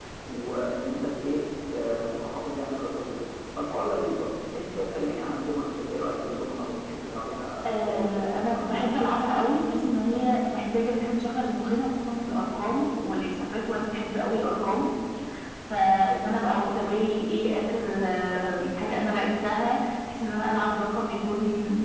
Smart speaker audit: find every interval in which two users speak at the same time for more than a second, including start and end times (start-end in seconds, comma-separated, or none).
7.7-9.5